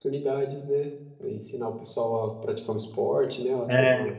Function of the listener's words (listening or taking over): taking over